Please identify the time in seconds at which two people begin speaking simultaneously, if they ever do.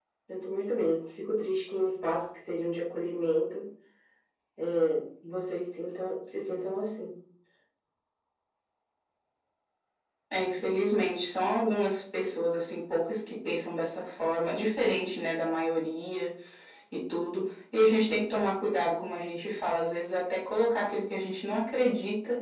none

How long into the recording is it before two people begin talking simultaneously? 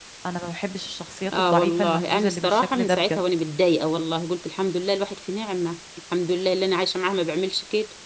1.3 s

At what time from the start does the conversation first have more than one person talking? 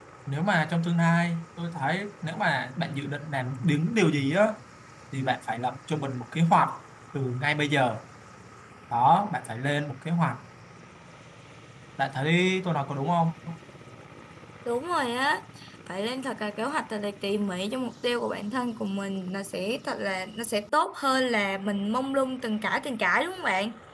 none

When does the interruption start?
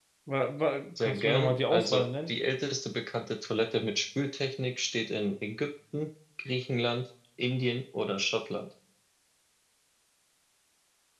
1.0 s

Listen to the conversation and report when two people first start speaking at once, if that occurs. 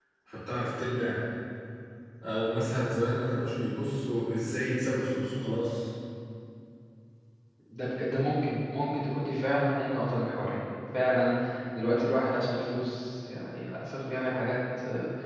none

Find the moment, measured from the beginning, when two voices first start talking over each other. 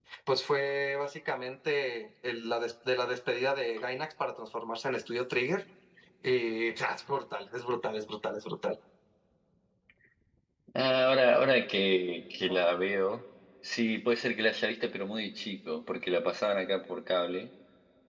none

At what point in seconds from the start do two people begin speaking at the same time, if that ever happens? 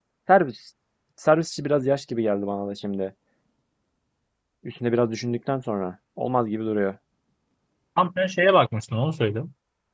none

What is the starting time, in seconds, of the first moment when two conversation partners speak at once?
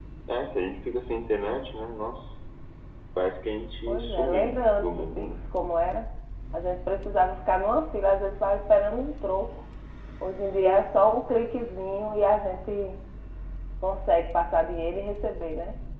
3.9 s

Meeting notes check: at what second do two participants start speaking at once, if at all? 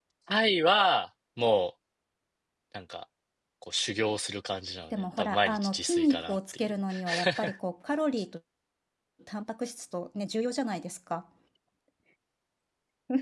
4.9 s

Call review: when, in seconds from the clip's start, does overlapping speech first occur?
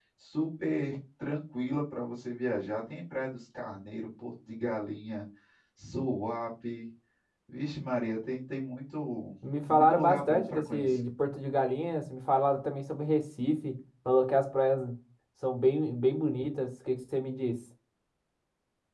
9.7 s

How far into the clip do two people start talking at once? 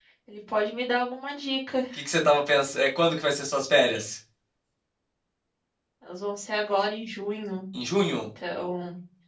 none

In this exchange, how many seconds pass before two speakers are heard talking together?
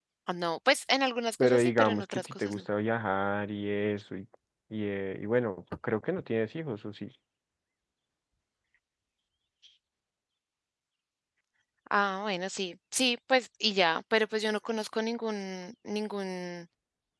1.4 s

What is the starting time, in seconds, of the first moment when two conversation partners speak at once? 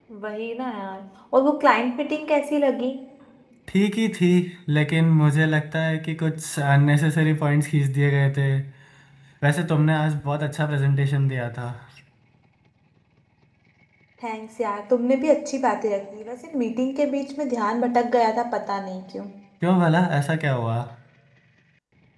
none

